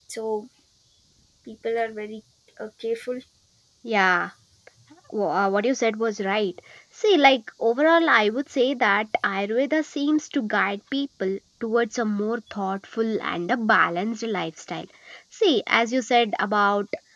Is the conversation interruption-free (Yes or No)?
Yes